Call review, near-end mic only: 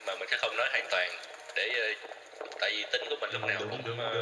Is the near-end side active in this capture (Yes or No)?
Yes